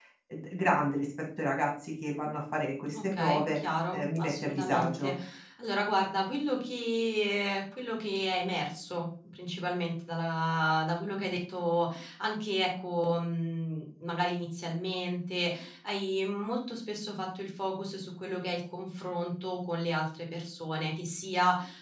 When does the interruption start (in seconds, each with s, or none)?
2.9 s